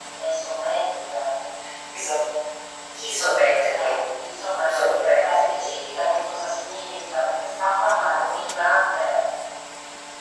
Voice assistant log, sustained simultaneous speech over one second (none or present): present